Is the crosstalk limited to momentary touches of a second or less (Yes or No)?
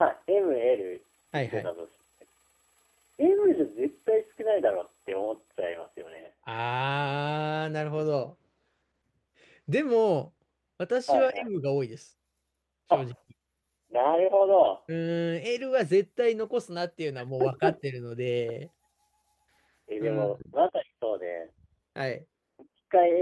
Yes